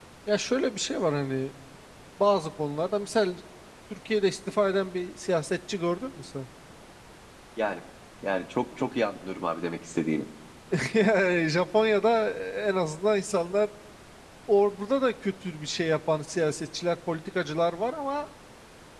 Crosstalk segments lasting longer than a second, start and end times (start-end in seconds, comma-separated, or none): none